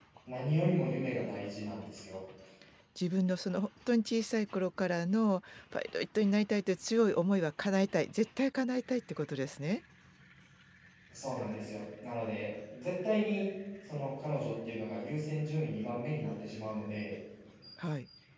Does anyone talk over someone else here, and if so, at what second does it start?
none

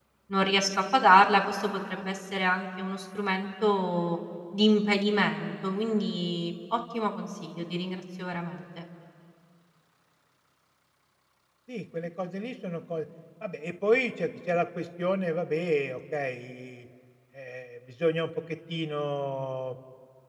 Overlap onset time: none

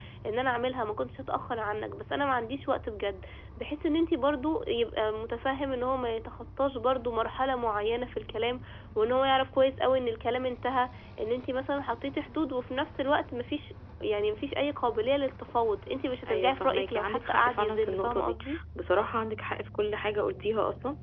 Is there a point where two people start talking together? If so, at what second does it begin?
16.2 s

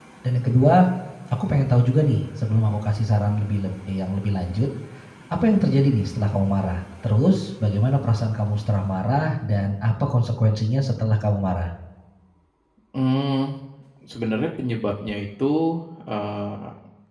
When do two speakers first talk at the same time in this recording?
none

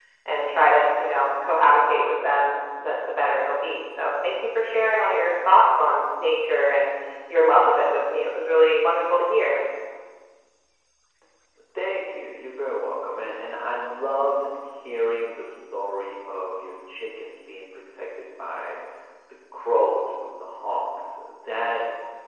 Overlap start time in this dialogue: none

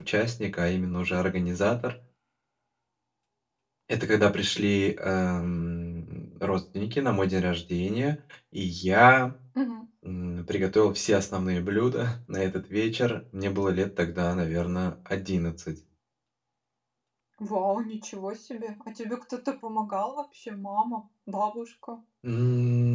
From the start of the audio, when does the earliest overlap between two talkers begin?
none

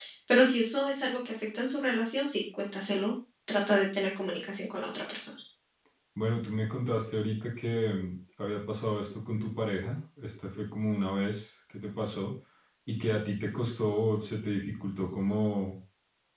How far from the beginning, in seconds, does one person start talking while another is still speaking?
none

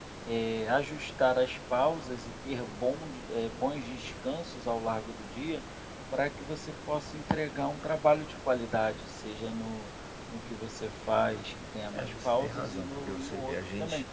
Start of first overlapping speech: 11.9 s

